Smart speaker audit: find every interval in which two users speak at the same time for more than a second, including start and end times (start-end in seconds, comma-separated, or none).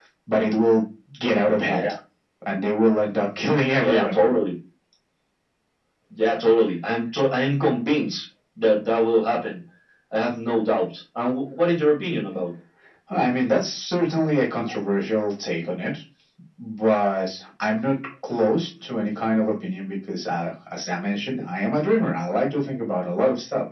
none